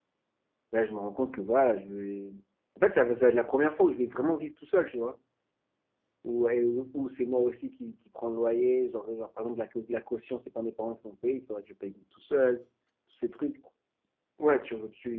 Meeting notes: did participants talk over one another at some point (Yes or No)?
No